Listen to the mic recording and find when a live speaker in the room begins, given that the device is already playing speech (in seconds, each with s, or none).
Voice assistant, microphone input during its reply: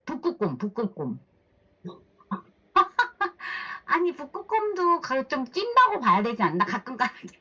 none